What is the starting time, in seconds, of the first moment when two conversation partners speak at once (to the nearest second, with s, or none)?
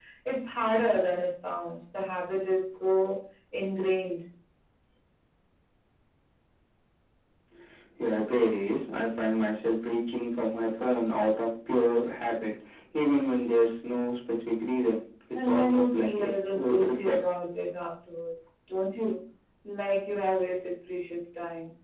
15 s